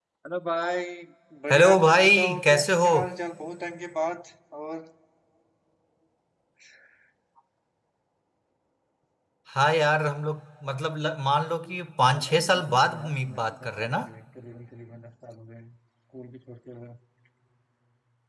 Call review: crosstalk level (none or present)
present